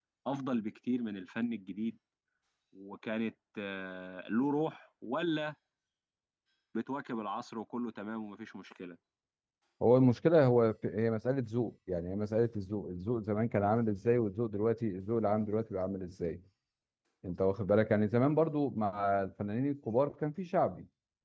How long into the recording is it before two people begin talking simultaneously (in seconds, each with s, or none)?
none